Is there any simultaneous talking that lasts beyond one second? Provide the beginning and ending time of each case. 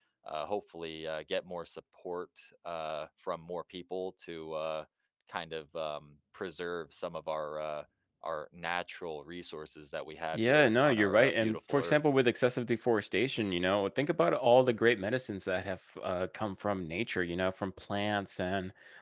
10.3-12.0

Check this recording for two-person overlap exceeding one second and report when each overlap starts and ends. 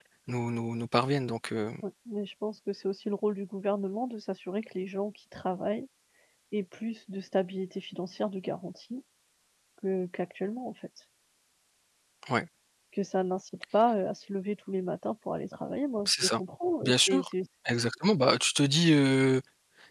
none

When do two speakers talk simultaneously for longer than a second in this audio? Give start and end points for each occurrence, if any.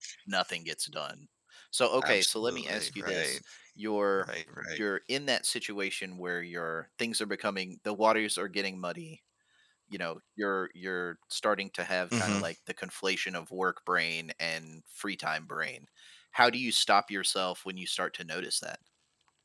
2.0-3.4

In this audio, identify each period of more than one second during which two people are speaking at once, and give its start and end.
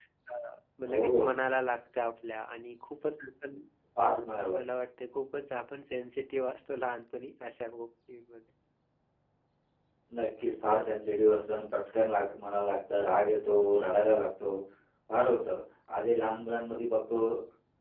none

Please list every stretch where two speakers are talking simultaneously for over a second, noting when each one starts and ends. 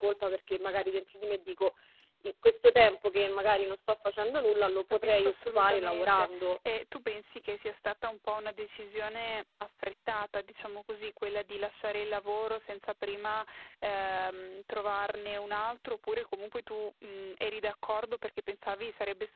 4.9-6.5

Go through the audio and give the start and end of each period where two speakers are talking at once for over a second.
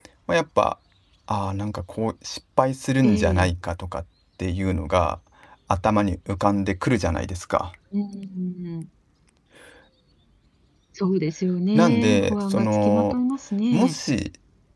11.7-13.2

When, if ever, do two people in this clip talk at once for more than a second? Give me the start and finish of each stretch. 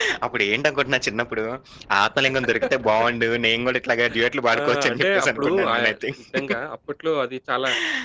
4.6-5.8

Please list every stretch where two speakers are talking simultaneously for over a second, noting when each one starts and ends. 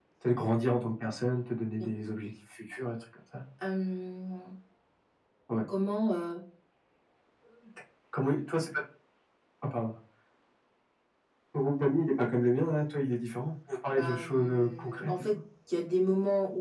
13.9-15.3

